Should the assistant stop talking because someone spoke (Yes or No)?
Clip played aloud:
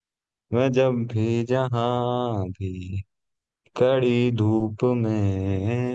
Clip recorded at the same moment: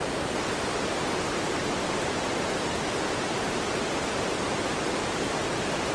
No